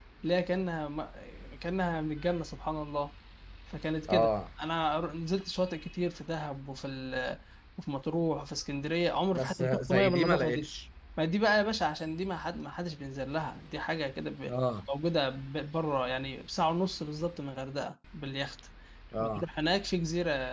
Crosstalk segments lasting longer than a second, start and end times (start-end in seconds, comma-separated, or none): 9.3-10.7